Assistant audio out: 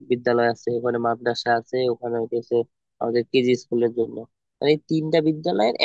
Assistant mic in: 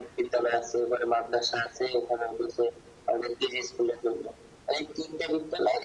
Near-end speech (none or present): none